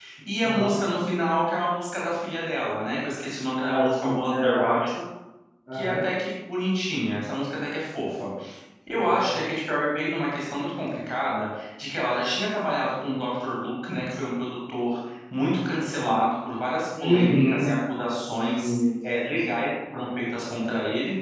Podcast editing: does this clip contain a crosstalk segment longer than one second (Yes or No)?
Yes